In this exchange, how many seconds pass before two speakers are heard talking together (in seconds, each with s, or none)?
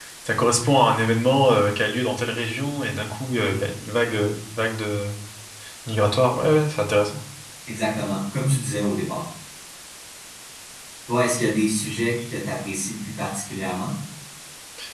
none